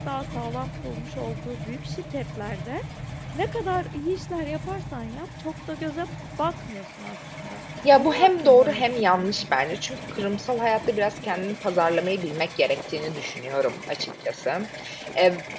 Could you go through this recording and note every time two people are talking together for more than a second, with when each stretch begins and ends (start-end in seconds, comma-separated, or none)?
8.0-9.6